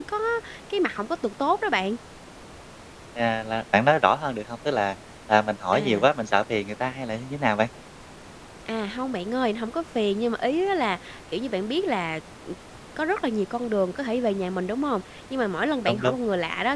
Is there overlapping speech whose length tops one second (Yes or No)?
No